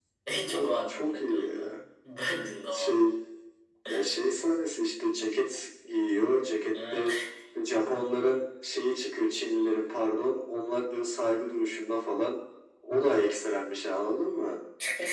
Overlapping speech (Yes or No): Yes